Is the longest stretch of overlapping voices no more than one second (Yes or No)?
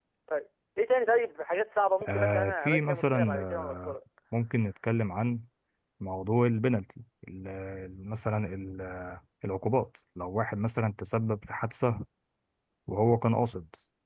No